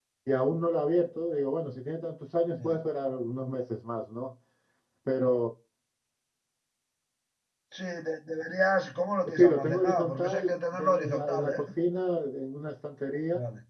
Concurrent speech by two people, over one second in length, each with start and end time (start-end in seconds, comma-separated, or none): 9.3-11.6